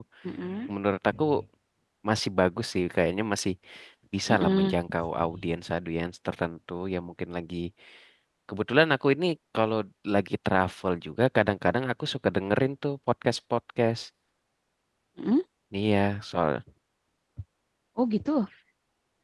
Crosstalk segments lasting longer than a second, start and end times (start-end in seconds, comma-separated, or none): none